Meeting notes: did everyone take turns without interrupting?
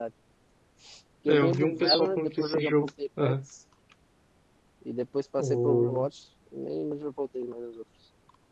No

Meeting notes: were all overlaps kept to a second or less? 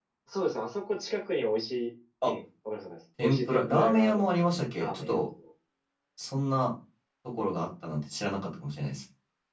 No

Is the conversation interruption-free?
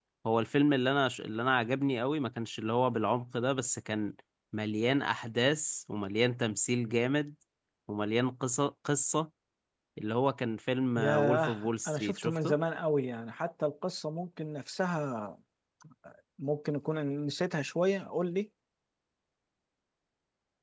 No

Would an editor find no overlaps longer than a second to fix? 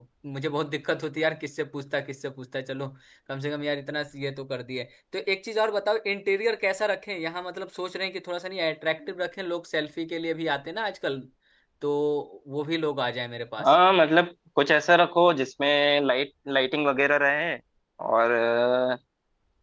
Yes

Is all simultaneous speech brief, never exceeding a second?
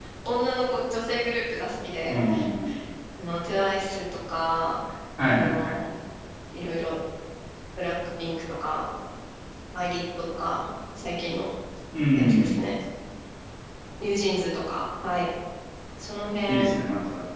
Yes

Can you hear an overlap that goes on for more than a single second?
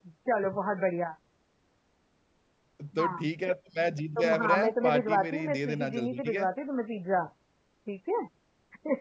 Yes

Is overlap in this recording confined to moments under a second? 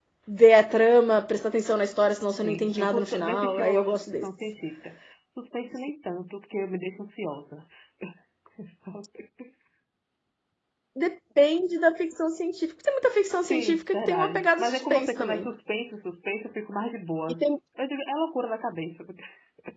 No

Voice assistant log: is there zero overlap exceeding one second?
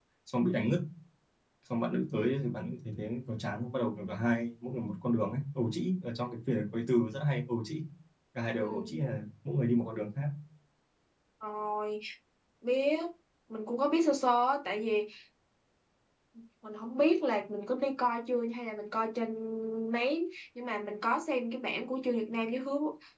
Yes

